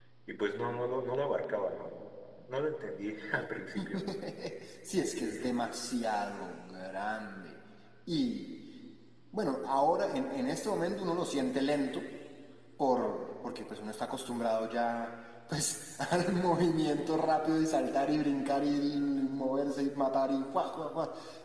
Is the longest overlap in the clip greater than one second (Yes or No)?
No